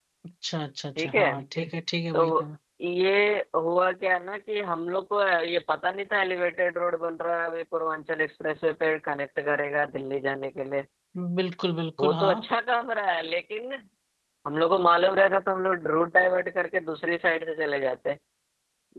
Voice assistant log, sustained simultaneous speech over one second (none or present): none